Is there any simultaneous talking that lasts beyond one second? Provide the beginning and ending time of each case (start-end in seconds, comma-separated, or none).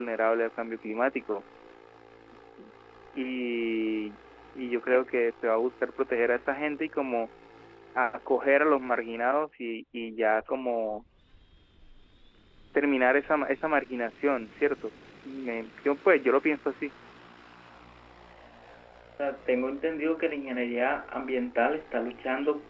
none